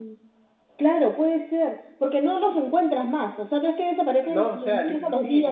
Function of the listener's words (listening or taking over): taking over